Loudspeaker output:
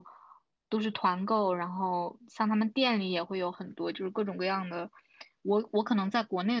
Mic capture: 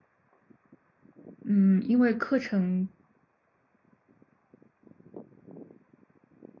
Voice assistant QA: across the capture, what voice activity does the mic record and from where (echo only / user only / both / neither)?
user only